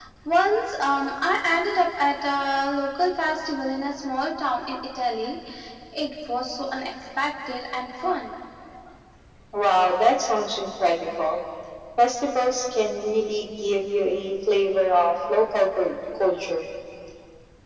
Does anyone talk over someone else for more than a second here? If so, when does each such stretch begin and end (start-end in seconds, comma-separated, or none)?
none